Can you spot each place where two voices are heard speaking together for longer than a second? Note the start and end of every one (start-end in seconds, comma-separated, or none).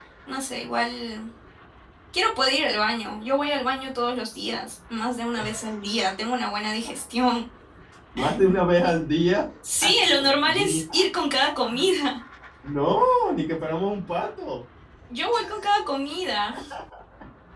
9.8-11.1